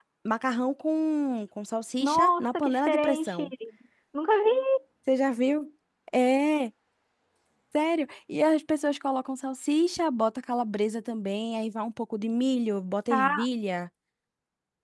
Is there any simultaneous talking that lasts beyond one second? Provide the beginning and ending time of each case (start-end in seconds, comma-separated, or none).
2.0-3.4